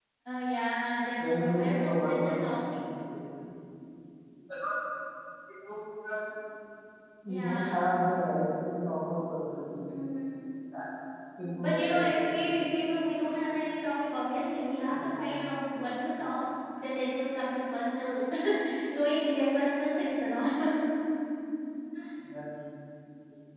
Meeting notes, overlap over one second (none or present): present